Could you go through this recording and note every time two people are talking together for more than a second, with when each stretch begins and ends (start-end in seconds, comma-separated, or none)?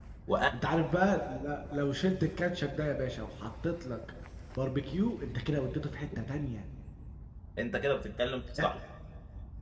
none